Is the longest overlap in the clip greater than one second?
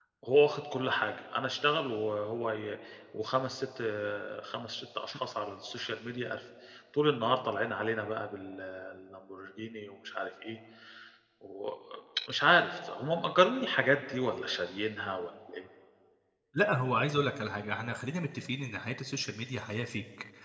No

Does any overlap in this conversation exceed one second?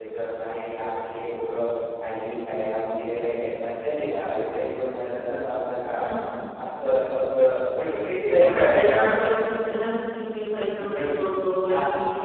Yes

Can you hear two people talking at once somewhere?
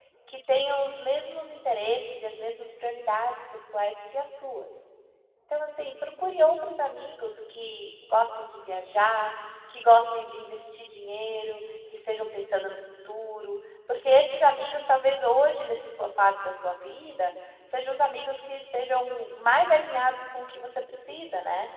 No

